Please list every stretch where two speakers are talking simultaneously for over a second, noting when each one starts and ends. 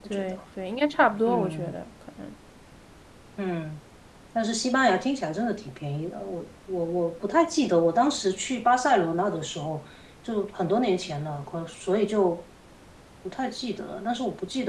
none

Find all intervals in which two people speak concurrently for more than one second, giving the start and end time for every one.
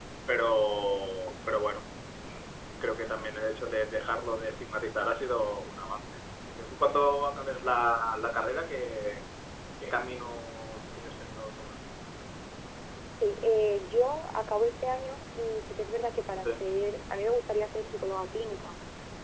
none

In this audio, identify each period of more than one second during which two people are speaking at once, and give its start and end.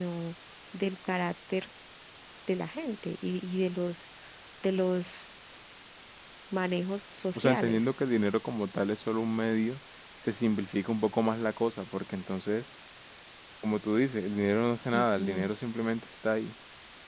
none

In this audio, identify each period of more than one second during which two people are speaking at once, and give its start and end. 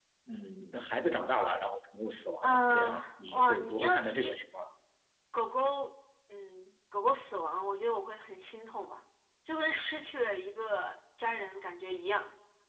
2.4-4.3

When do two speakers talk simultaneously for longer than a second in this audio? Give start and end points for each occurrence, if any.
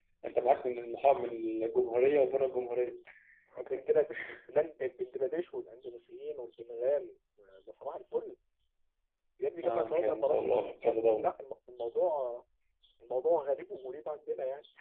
9.6-11.3

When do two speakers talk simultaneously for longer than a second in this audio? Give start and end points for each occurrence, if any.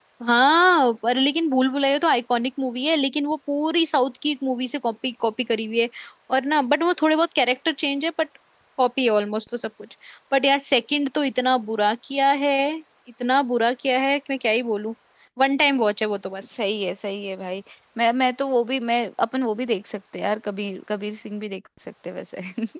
none

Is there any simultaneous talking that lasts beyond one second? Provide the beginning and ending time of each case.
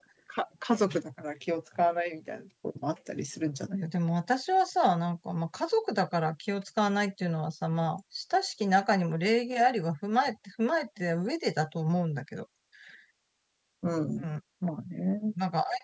none

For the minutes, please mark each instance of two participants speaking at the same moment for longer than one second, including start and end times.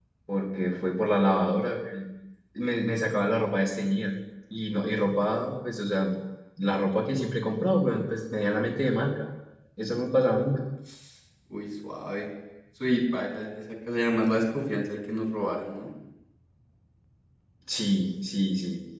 none

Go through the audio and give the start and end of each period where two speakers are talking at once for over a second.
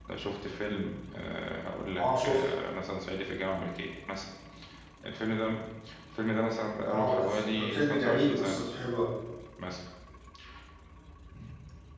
6.9-8.6

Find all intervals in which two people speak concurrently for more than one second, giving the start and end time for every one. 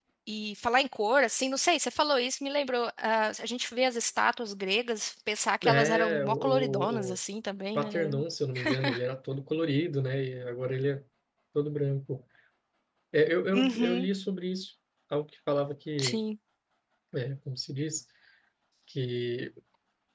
5.7-7.2

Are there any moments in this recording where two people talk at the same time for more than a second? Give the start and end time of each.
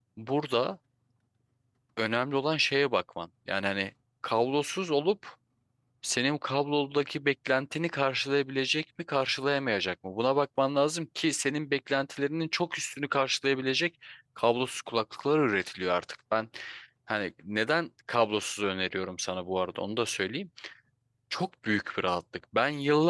none

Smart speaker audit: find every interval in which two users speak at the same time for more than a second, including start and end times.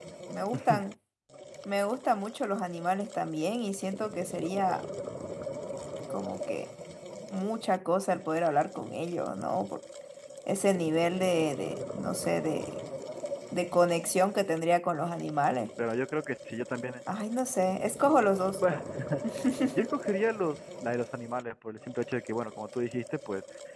none

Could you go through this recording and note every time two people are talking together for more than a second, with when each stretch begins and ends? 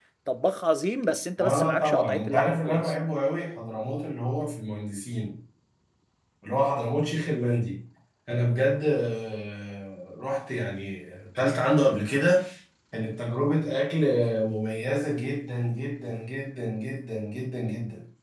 1.4-2.9

